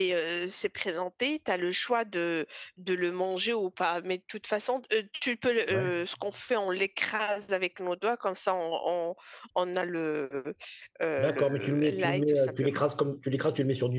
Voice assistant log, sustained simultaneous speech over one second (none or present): present